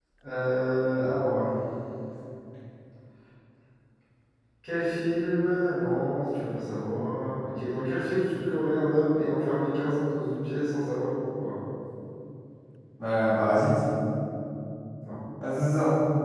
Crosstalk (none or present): none